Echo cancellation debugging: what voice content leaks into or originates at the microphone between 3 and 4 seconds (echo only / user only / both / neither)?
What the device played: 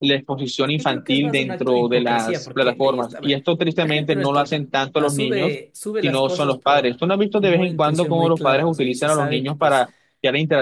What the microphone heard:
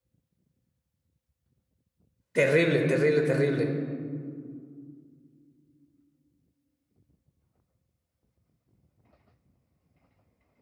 user only